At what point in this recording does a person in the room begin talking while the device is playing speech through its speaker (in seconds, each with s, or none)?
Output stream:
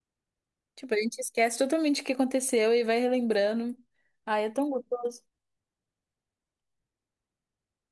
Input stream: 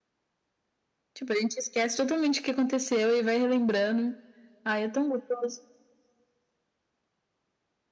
none